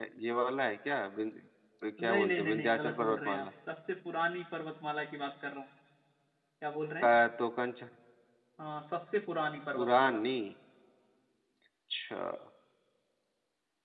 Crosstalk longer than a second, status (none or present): present